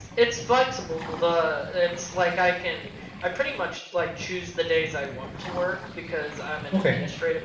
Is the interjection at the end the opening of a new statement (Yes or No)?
No